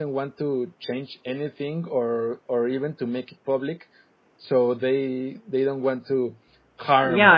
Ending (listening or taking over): taking over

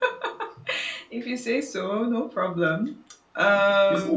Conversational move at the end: taking over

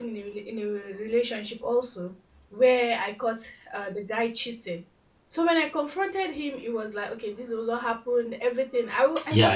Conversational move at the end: listening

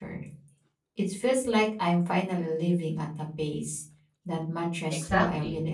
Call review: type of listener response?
taking over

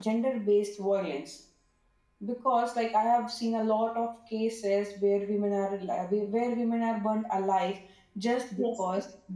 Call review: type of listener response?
listening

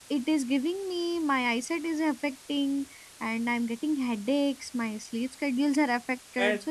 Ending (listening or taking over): taking over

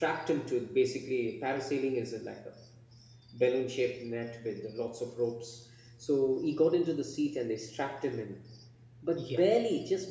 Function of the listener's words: listening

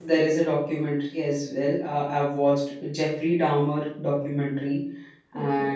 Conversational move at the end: listening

